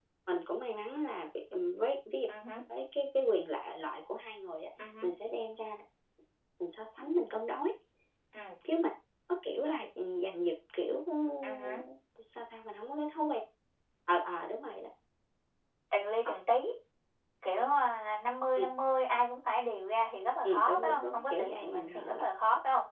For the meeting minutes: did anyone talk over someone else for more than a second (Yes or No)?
Yes